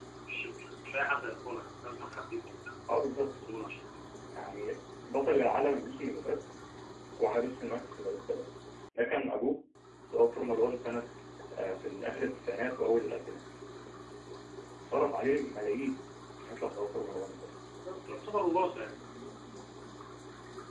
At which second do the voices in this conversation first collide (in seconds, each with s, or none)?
none